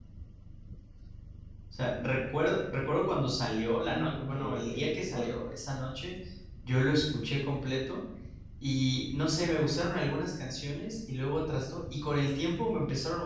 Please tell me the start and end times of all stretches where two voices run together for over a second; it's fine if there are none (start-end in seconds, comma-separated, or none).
3.9-5.3